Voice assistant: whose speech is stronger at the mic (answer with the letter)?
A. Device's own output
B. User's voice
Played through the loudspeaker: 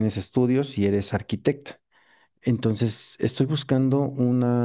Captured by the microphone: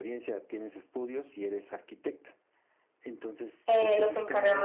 B